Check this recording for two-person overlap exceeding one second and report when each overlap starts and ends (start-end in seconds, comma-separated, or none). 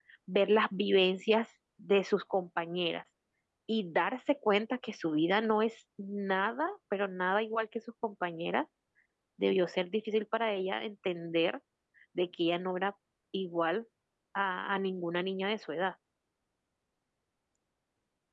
none